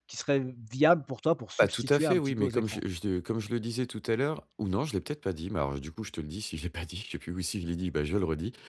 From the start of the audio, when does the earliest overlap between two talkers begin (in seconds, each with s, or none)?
1.6 s